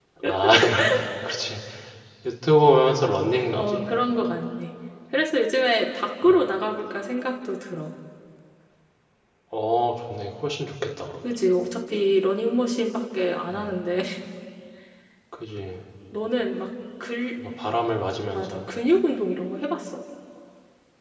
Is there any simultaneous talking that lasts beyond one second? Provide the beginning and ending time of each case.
none

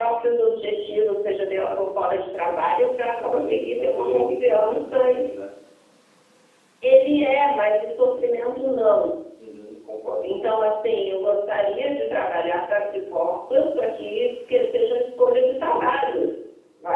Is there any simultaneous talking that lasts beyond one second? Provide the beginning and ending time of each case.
3.2-5.0

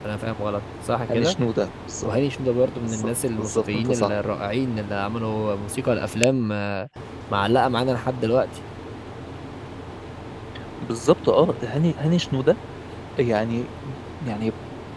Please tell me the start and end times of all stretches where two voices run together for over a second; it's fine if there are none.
2.8-4.1

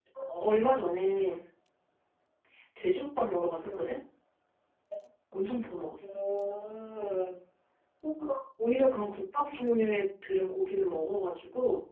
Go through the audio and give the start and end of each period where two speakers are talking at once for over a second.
none

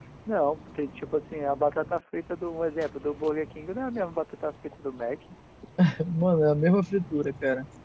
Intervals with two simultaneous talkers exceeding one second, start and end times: none

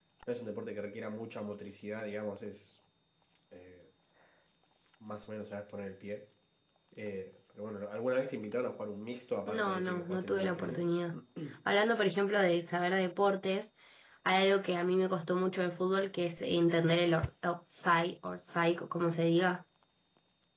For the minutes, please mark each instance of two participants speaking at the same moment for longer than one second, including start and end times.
9.5-10.9

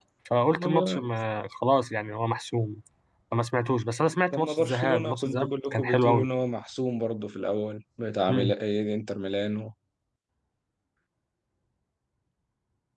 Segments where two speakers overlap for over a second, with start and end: 4.3-6.3

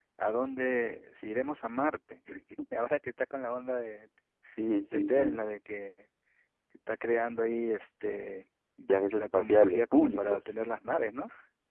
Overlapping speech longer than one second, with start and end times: 9.1-10.4

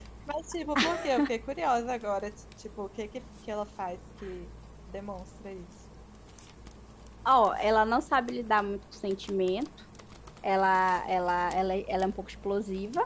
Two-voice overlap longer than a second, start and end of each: none

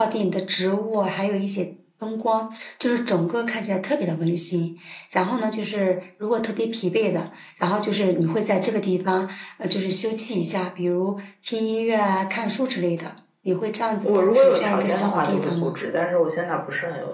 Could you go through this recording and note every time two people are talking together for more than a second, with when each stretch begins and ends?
14.0-15.7

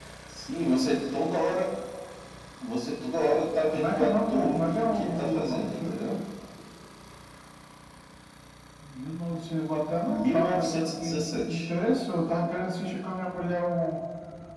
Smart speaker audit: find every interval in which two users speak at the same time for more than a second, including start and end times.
3.7-6.0, 10.0-11.7

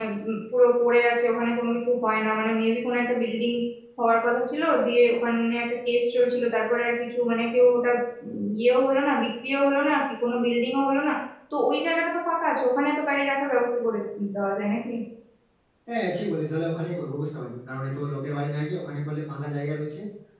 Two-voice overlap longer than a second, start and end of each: none

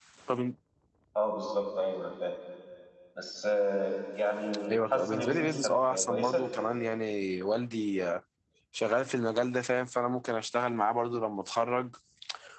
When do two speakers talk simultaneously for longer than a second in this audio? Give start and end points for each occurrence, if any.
4.7-6.5

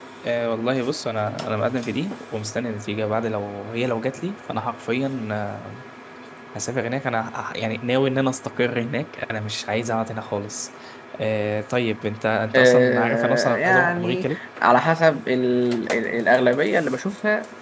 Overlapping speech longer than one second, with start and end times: 12.5-14.4

